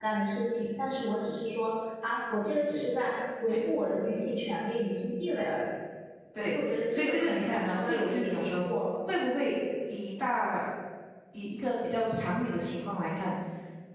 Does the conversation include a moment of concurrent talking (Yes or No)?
Yes